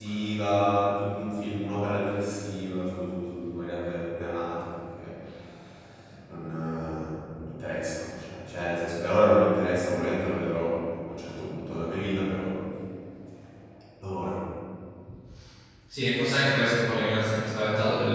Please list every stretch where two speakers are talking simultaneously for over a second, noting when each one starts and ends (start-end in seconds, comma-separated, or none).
none